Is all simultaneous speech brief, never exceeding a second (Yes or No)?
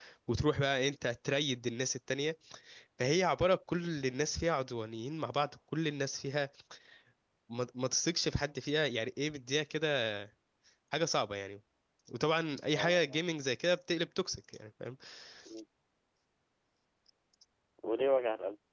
Yes